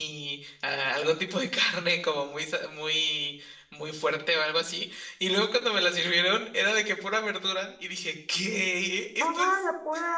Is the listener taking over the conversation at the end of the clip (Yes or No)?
Yes